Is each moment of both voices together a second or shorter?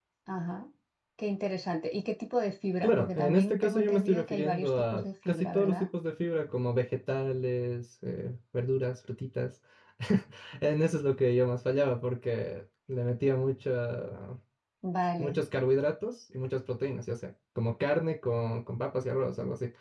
No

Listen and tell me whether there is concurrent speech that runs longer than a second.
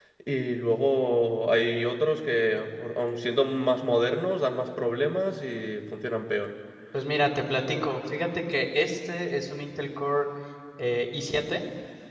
No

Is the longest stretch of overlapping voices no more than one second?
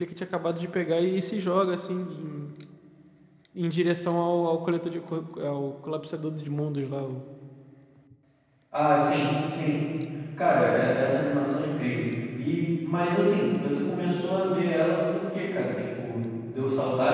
Yes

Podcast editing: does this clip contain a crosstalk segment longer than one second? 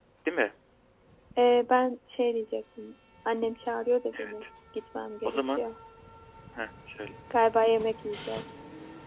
No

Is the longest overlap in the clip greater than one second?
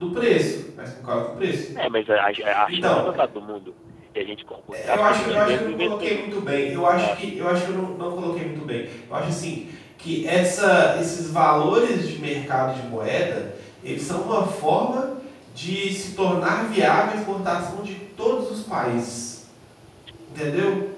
Yes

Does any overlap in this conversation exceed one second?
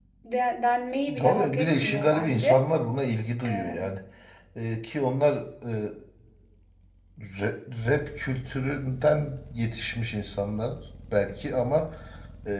Yes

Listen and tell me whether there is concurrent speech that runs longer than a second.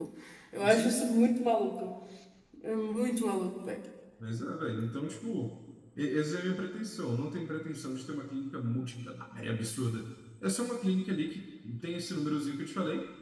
No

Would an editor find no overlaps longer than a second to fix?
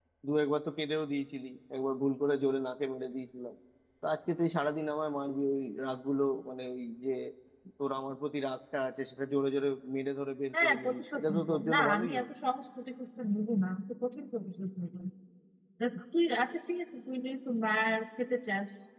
No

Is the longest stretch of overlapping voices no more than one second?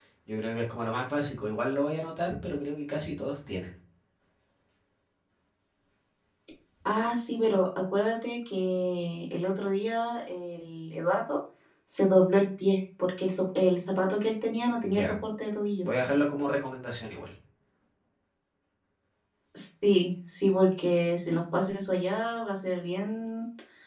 Yes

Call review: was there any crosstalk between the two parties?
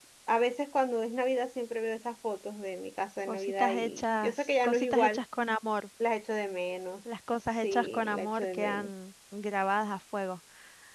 Yes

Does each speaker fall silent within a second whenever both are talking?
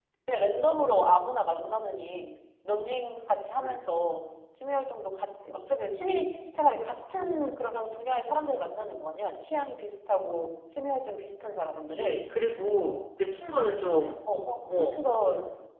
Yes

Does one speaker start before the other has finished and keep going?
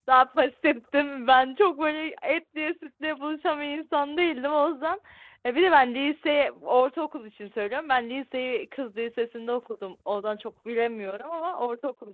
No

